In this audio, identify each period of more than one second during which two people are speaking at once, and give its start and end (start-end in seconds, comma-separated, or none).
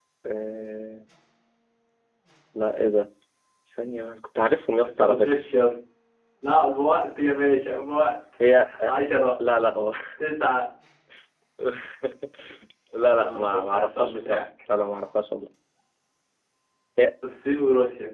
13.0-14.4